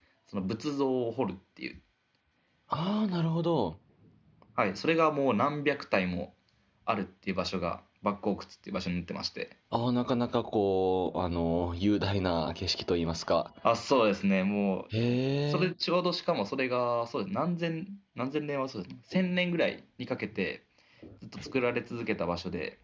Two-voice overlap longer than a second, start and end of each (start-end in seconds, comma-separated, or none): none